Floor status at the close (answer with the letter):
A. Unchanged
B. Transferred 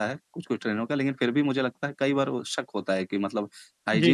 A